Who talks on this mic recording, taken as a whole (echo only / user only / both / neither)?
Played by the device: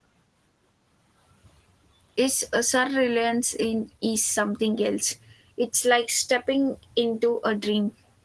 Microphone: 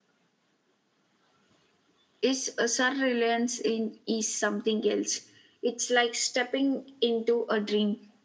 echo only